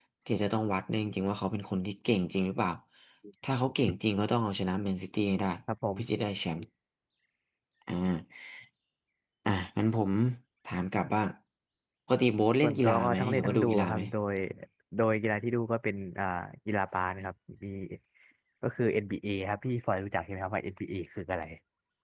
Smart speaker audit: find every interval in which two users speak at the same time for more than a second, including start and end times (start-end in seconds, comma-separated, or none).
12.6-14.0